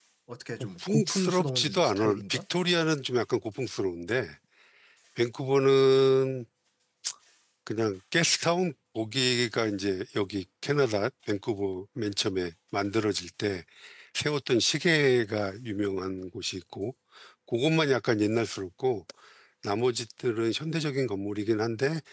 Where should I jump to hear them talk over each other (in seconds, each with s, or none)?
0.6 s